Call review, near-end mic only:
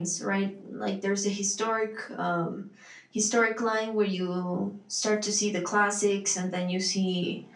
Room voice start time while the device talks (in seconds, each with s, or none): none